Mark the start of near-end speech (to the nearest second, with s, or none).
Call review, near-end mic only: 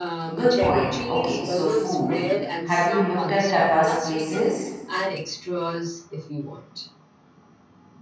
0 s